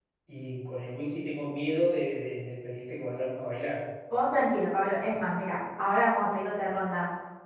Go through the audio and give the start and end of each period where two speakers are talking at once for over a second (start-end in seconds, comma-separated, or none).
none